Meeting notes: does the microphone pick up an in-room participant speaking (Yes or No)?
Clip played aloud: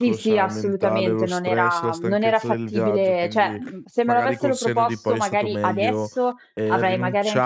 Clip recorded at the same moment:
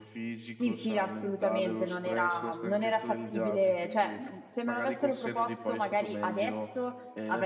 No